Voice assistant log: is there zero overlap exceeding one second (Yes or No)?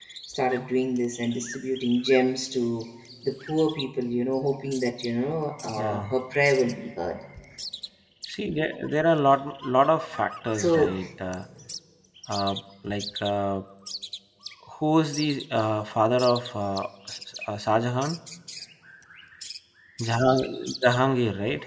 Yes